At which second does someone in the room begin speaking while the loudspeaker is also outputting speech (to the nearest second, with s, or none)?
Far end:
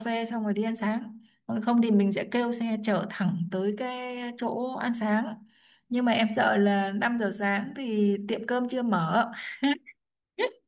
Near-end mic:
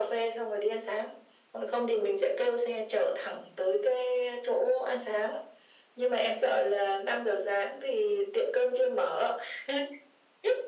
none